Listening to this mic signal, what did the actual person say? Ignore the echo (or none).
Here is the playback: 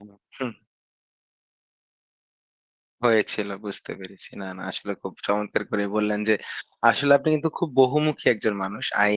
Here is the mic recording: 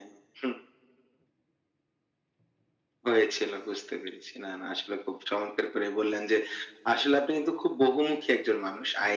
none